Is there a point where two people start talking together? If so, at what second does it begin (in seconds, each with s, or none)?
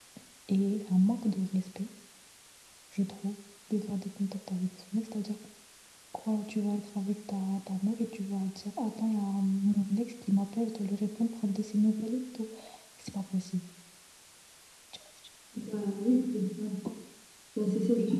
none